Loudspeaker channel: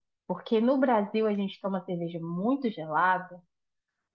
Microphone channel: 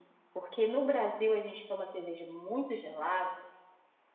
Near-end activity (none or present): none